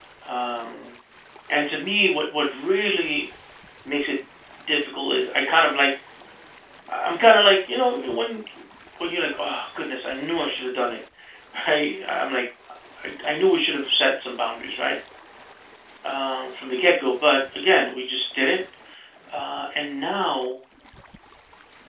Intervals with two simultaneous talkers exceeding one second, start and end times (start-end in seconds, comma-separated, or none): none